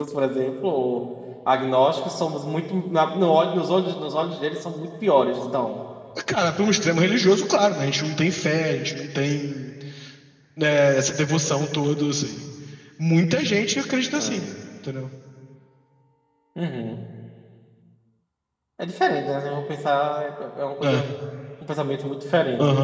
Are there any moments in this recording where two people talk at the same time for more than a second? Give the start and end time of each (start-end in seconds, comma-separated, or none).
none